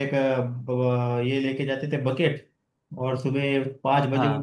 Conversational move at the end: listening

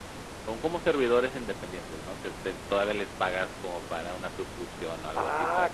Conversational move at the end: taking over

